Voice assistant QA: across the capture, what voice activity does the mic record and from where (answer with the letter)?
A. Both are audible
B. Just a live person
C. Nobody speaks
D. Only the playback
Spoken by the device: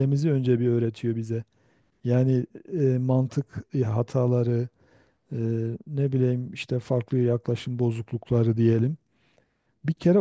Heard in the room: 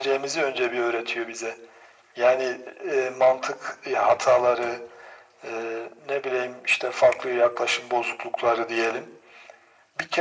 D